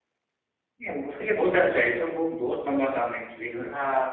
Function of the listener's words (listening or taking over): taking over